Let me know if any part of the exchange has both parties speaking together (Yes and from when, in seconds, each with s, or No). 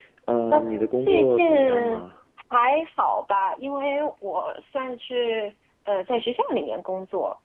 Yes, from 0.5 s